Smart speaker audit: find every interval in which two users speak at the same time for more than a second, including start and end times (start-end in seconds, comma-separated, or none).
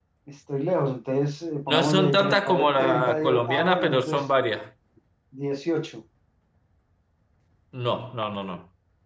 1.7-4.3